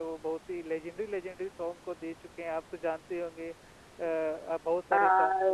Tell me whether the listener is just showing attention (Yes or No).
No